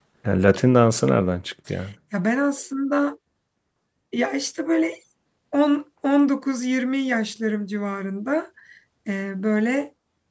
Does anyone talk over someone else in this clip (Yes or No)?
No